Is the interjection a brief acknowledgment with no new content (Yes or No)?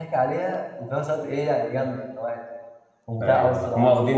No